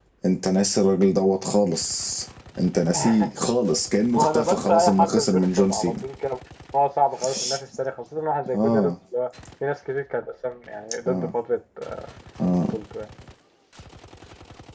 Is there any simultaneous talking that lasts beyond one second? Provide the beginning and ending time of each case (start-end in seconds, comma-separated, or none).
4.2-5.9